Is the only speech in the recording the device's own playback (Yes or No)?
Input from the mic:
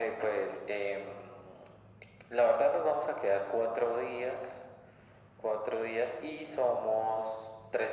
Yes